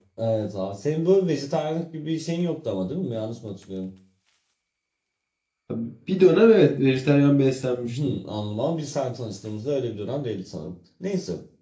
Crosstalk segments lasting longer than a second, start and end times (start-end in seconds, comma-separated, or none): none